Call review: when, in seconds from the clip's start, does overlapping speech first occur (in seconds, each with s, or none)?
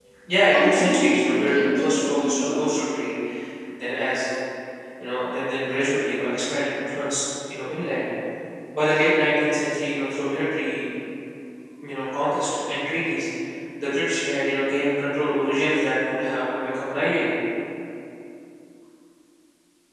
0.5 s